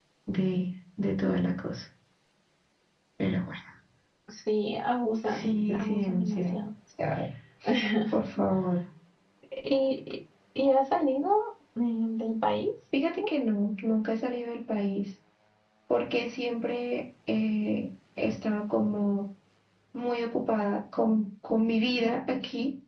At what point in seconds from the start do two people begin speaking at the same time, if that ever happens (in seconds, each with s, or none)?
5.3 s